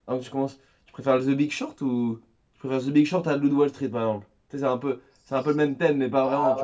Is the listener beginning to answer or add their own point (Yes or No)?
Yes